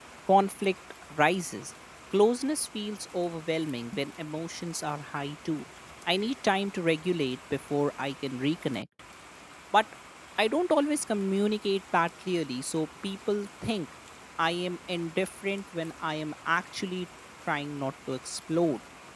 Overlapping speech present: No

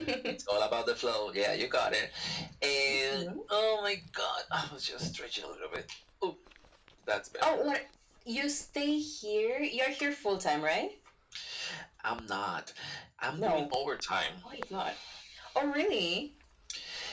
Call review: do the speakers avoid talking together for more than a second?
Yes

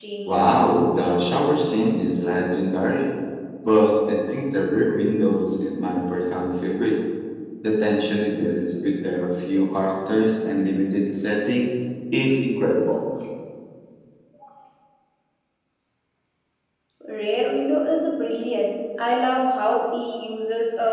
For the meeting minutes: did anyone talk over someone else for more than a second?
No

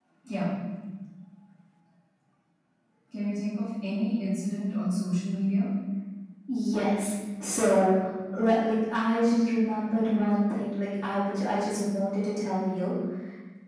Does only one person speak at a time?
Yes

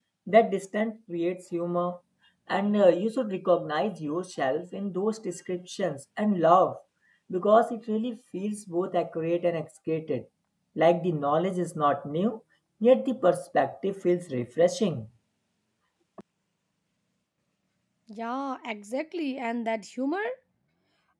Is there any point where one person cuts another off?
No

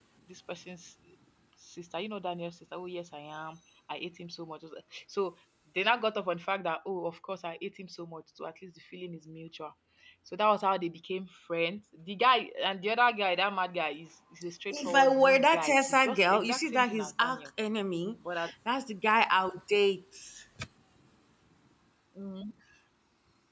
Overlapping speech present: Yes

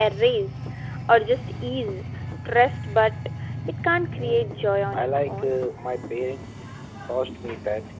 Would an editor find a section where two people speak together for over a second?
Yes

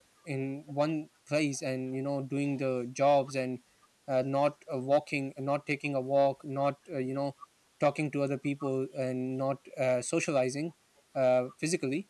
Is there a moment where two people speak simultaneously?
No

